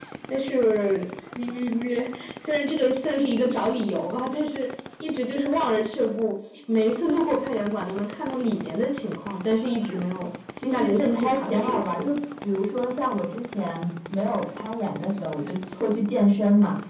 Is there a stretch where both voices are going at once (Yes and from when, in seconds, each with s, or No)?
Yes, from 10.5 s